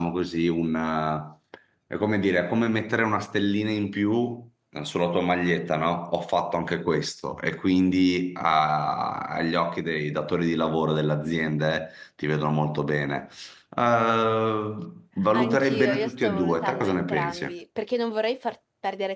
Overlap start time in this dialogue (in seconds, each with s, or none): 15.3 s